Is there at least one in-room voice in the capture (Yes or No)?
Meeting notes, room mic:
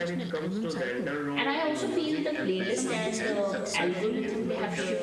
Yes